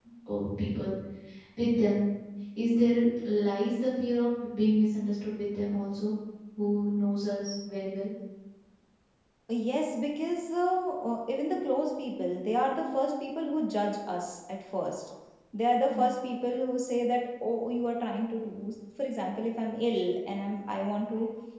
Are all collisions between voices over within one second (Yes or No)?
Yes